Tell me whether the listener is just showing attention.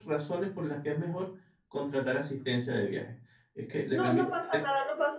No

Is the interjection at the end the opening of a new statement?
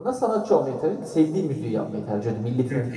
Yes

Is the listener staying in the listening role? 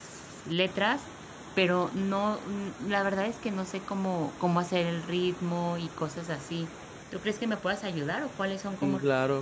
No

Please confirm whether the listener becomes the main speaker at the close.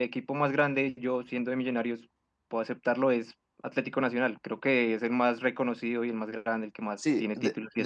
Yes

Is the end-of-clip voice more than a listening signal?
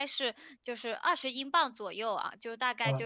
No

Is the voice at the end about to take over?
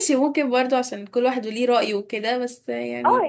Yes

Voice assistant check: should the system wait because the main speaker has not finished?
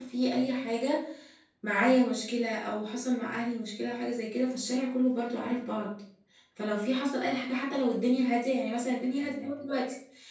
Yes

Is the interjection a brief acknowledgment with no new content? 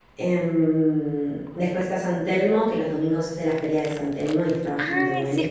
No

